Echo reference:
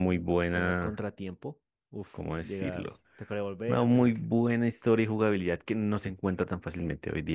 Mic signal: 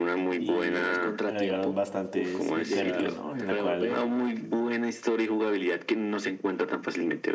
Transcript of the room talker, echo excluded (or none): y agregaron bastantes mecánicas, ¿no? En la cual